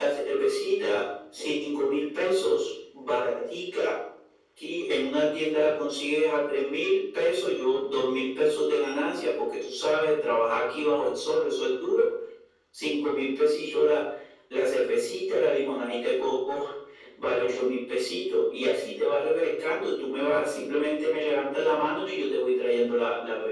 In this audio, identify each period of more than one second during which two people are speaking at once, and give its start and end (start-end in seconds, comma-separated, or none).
none